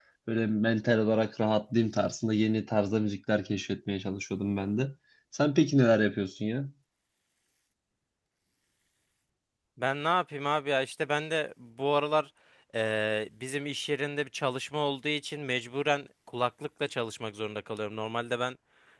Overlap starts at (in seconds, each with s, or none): none